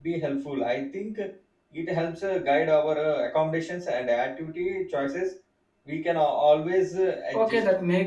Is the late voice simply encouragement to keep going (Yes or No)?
No